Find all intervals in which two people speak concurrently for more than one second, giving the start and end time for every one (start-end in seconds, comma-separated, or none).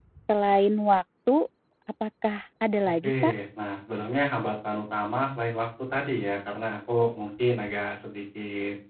none